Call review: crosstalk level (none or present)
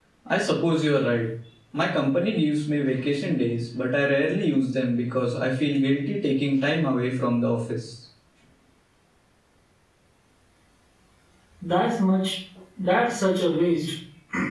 none